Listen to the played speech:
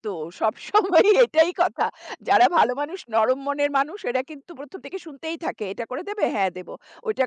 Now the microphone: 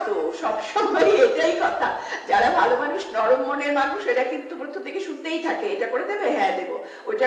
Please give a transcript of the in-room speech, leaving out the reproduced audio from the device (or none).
none